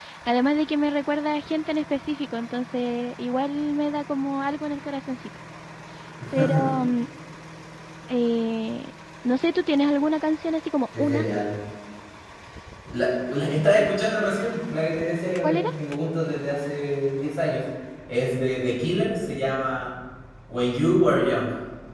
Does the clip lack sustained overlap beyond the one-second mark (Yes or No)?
Yes